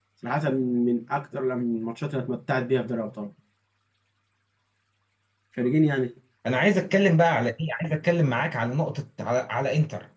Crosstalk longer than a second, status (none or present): none